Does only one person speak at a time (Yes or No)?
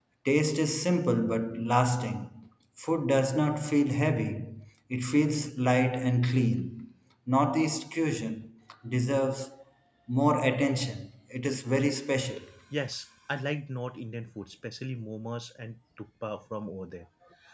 Yes